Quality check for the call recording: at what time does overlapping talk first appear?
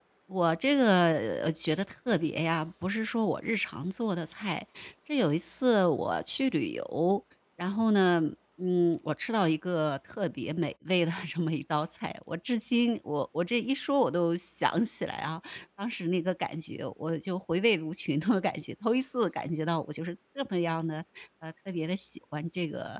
none

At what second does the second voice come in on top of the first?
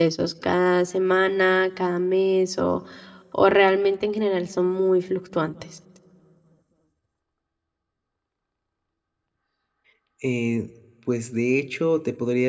none

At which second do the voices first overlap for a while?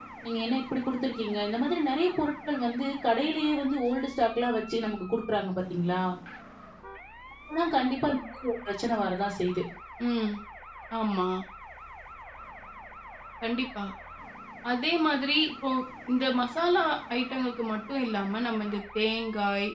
none

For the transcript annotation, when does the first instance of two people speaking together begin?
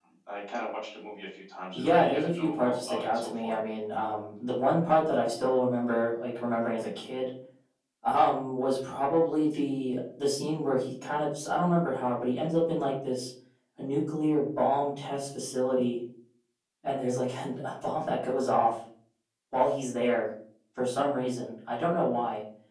1.7 s

